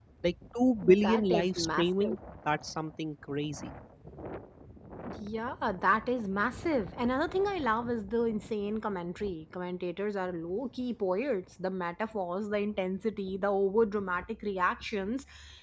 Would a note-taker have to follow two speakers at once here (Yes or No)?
Yes